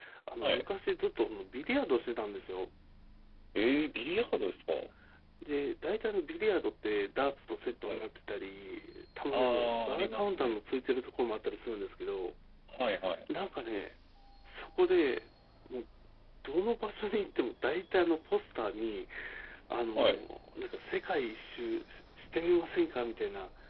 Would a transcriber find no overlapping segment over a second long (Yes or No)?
No